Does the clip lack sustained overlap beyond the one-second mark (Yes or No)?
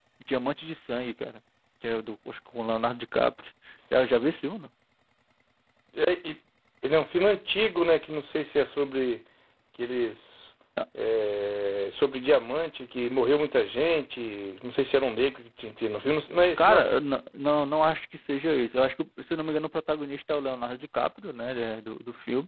Yes